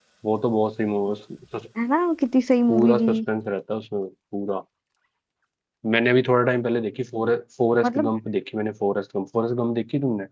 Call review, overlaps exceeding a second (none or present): none